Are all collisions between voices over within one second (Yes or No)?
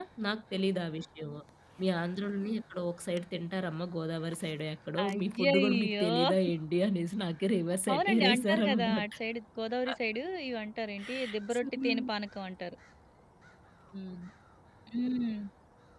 No